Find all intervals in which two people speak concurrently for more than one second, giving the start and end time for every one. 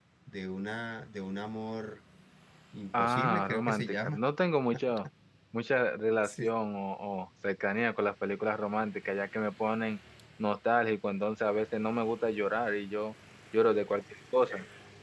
2.9-4.2

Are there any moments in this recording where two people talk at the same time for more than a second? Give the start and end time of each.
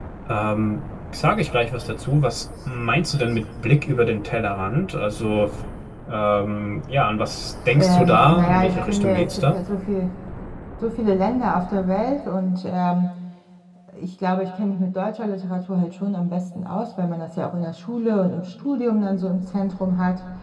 7.8-9.6

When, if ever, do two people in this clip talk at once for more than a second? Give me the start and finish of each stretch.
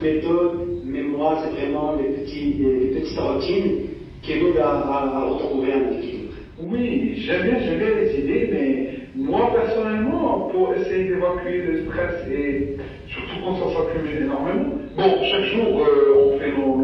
none

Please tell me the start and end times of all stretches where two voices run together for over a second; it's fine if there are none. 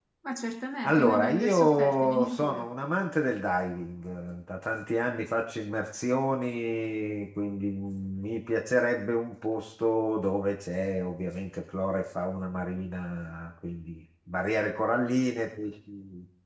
0.8-2.6

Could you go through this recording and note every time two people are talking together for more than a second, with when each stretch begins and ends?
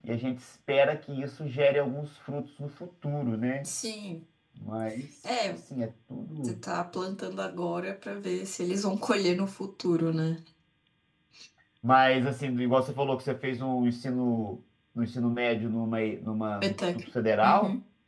none

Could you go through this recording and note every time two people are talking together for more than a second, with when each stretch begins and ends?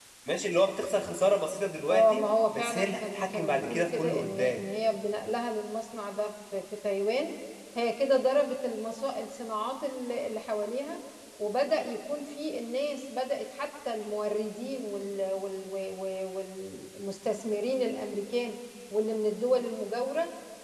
1.9-4.6

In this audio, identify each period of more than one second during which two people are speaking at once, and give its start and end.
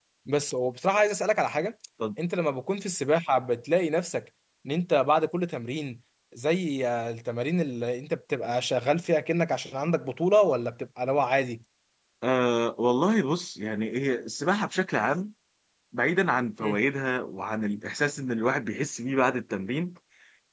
none

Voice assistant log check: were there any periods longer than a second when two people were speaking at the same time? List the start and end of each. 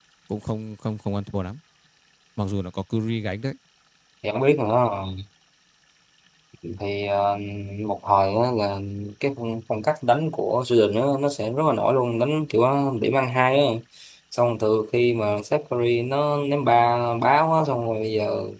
none

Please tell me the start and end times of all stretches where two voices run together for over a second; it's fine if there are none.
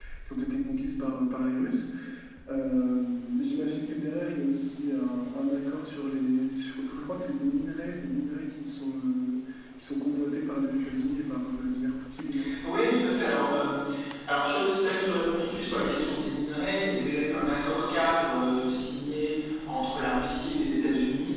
none

